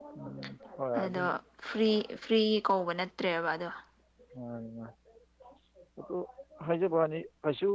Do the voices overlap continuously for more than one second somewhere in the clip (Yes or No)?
No